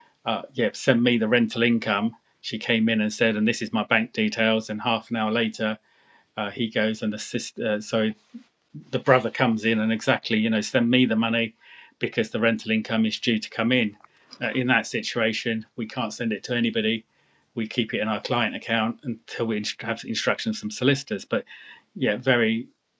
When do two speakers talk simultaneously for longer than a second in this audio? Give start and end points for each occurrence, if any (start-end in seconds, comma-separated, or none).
none